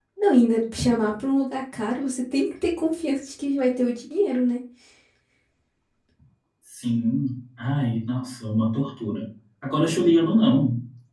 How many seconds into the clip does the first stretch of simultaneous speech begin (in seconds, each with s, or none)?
none